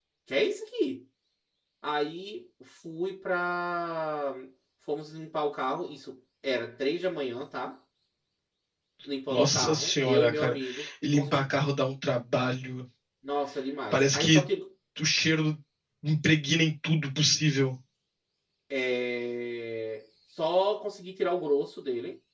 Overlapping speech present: Yes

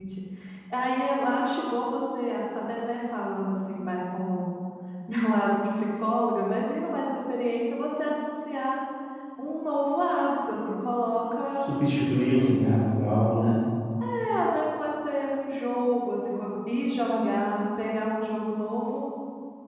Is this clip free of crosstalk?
Yes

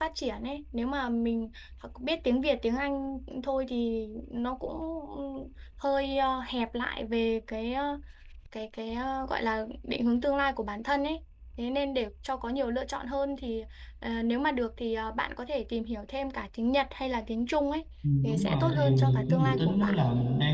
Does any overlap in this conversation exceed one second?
Yes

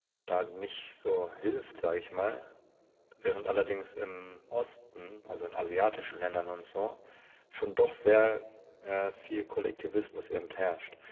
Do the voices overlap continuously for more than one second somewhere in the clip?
No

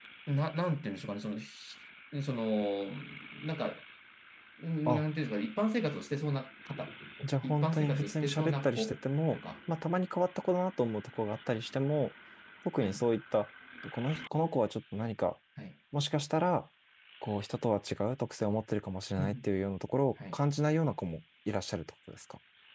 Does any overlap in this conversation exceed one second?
Yes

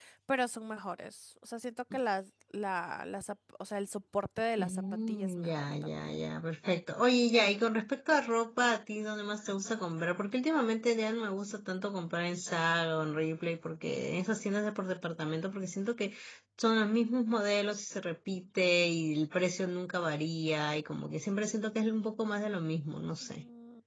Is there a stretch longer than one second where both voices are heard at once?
Yes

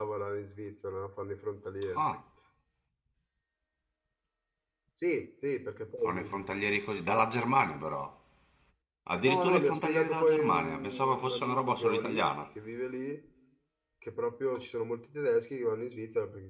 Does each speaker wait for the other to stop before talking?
No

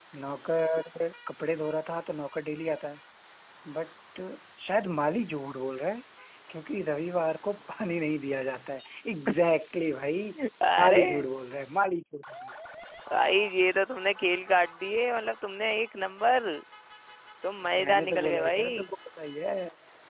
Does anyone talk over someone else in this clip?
Yes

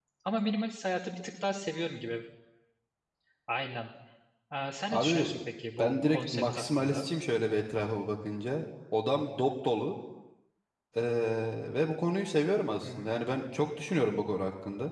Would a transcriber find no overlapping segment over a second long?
No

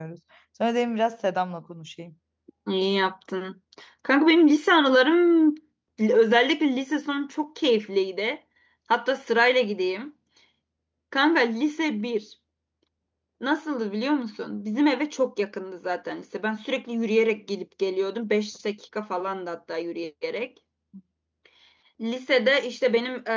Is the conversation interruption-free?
Yes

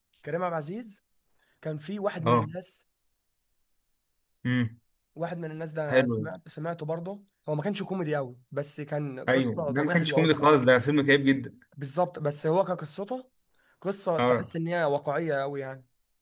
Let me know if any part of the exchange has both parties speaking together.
Yes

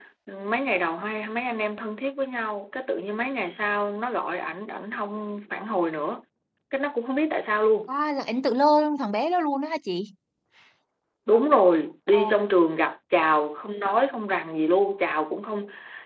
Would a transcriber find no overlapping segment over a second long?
Yes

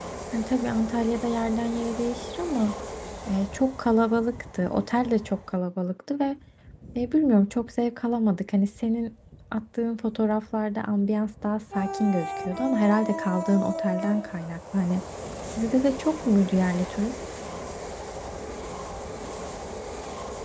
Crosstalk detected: No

